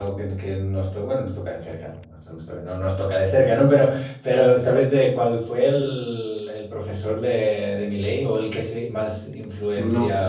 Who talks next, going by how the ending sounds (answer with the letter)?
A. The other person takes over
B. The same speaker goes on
B